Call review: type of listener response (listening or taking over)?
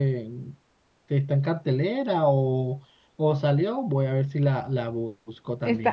taking over